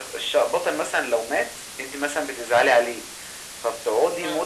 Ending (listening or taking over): listening